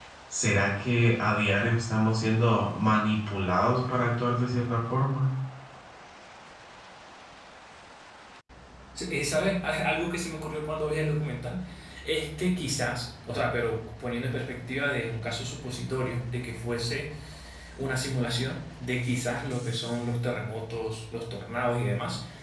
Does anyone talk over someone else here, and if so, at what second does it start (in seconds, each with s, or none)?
none